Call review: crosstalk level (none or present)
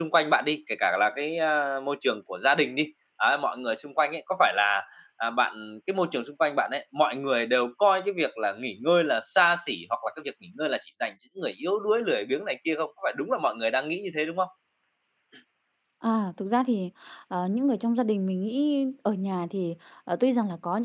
none